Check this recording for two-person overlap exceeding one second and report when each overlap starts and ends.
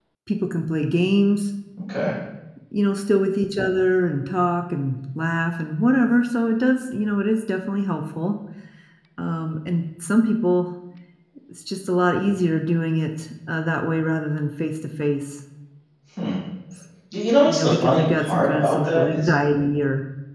17.4-19.3

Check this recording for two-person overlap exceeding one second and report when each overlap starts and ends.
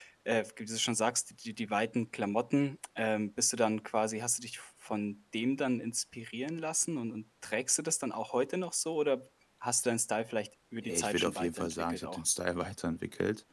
10.8-12.2

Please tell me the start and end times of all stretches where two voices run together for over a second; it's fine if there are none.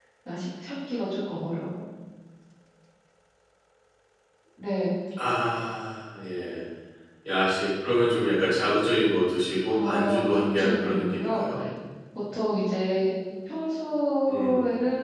9.7-11.4

